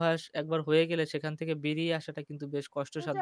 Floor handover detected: Yes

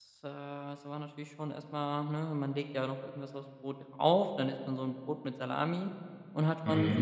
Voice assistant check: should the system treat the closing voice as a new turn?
No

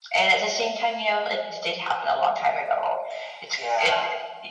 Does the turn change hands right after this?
No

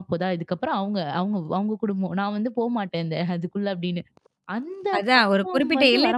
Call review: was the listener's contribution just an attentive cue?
No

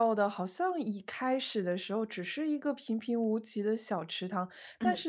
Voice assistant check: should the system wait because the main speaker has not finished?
Yes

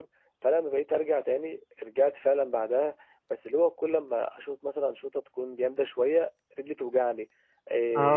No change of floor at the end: No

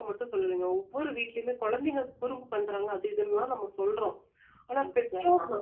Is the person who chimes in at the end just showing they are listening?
Yes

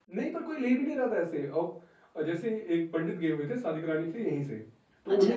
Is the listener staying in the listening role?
Yes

